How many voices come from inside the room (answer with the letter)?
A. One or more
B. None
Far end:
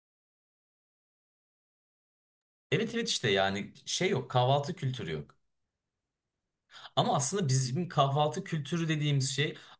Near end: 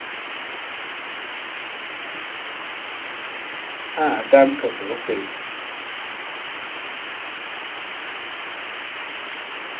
A